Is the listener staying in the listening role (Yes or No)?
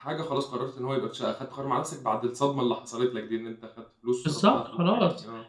No